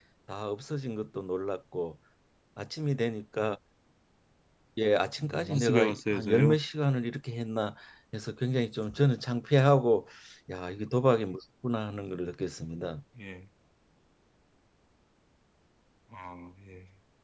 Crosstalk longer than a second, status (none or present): present